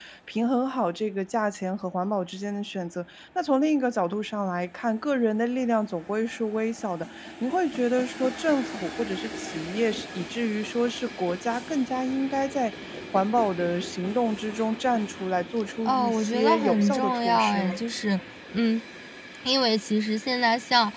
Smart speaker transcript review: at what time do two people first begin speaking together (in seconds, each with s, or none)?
15.8 s